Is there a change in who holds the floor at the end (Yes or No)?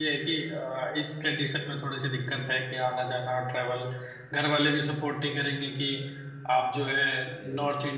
No